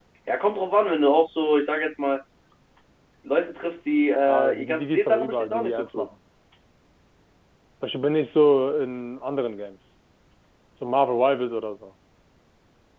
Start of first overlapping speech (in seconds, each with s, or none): 4.2 s